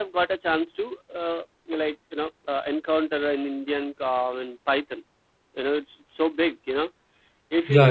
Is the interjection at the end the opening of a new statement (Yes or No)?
Yes